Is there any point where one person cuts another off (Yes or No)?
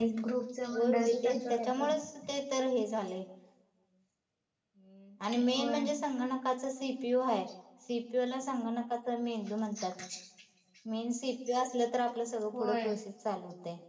Yes